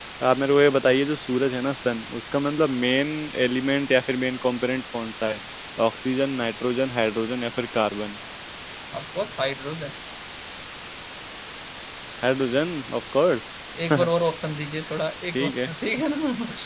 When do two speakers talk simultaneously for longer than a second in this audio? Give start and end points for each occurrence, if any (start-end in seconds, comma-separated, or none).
none